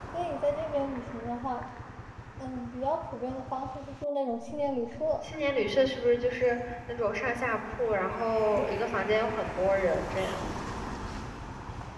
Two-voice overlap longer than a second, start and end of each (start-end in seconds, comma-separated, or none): none